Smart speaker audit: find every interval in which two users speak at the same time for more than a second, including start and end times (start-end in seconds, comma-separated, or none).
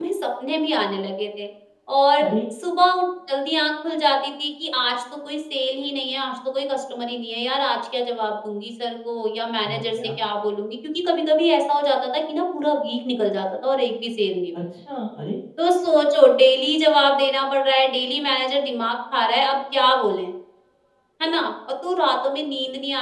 none